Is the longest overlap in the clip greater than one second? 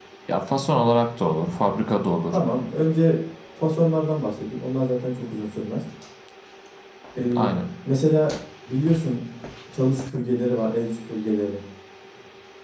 No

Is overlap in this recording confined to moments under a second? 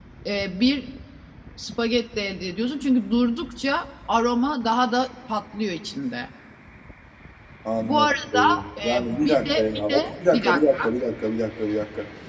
No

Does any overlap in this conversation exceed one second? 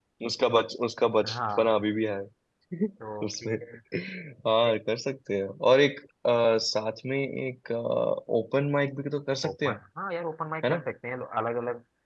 No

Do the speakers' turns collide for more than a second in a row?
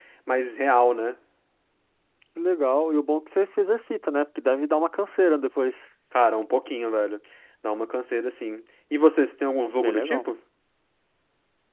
No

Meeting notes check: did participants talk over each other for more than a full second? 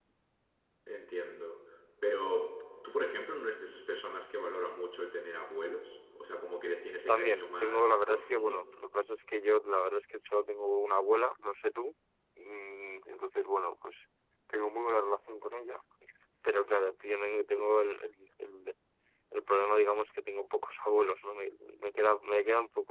Yes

